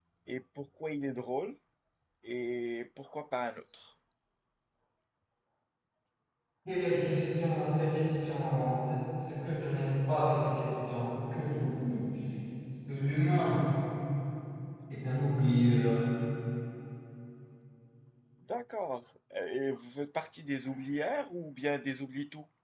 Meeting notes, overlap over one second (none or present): none